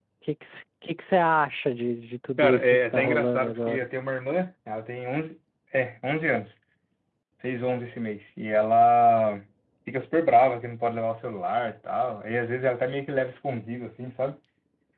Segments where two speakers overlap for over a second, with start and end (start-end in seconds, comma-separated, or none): 2.4-3.9